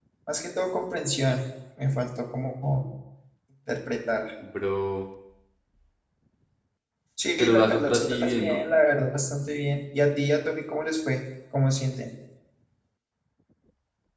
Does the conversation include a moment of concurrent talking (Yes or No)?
Yes